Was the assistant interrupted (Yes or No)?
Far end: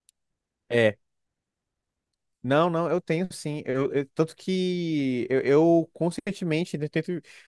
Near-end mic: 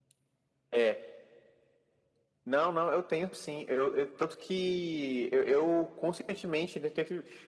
No